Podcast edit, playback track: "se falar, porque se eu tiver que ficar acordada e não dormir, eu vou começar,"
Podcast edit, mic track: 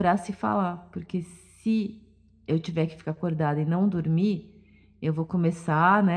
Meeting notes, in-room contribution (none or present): none